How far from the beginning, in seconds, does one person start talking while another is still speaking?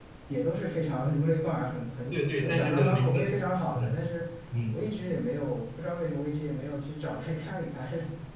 2.1 s

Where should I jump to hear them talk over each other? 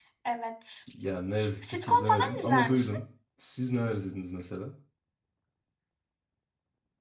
1.6 s

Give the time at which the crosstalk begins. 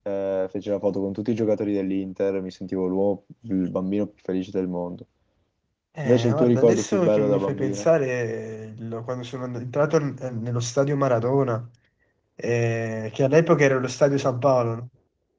6.0 s

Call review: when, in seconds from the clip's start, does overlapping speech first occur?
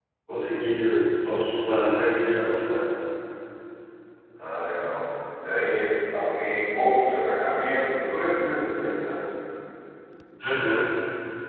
none

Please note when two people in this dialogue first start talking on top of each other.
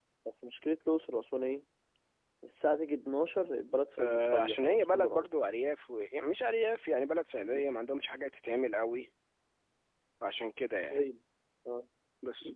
4.0 s

